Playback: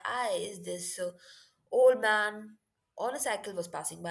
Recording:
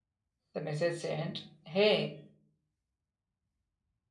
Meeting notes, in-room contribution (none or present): present